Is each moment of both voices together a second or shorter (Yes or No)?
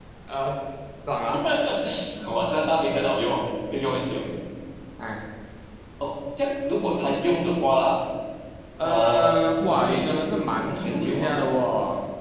No